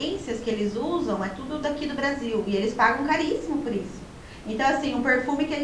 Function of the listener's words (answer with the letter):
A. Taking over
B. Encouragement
B